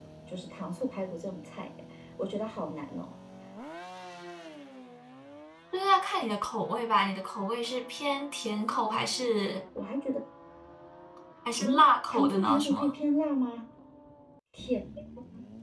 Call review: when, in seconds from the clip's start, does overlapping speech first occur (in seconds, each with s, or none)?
11.6 s